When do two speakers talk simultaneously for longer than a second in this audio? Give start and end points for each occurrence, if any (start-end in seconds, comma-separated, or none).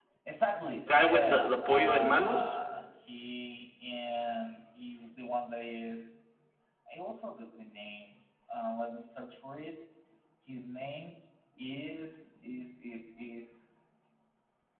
0.9-2.4